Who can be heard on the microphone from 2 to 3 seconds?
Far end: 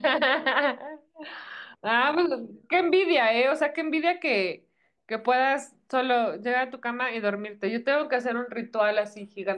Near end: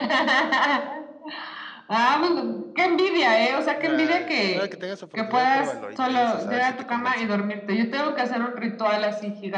echo only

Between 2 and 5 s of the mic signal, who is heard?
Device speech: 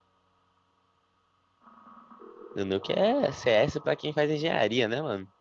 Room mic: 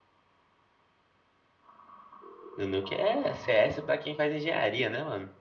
echo only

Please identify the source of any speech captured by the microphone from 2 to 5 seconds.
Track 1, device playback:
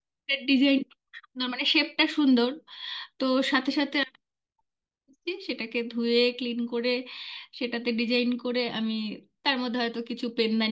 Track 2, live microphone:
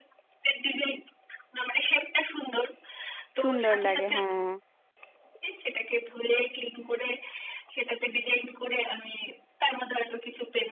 both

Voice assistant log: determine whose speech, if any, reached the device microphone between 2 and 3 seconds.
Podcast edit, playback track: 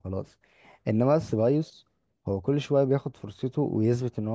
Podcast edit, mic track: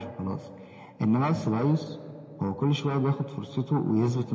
echo only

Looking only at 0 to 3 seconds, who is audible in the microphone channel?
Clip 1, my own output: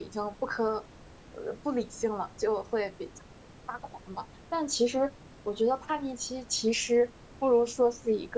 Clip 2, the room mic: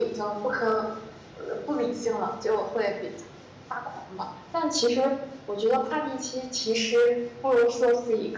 echo only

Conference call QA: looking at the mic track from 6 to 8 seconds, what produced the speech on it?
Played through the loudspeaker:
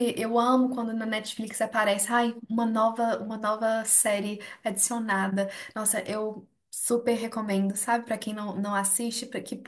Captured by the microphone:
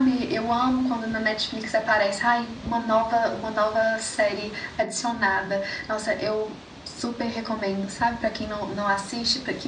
echo only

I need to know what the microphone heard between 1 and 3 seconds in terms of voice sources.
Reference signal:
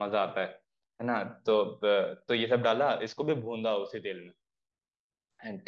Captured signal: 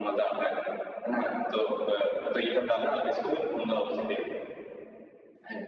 echo only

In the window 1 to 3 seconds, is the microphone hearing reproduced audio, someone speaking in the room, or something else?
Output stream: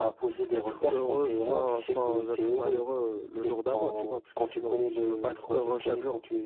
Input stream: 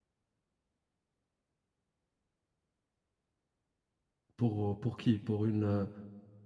neither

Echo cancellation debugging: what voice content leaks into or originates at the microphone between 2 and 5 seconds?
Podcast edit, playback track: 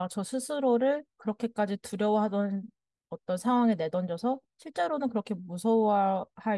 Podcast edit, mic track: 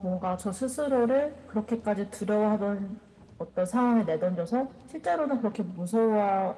echo only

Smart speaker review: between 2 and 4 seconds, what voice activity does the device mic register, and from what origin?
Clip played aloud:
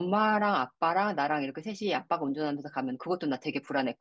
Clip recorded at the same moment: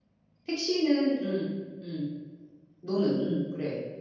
user only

